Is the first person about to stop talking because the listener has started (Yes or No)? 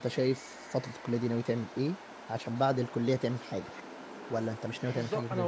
Yes